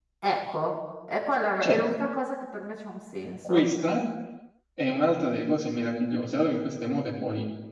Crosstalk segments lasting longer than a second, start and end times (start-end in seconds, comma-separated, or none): none